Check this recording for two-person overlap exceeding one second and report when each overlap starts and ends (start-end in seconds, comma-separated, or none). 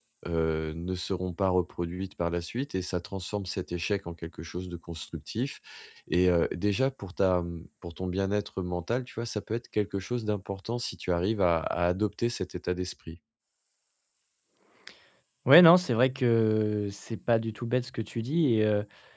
none